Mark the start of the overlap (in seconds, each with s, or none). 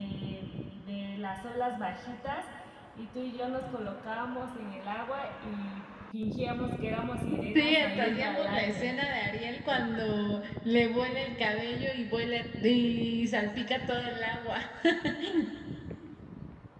7.3 s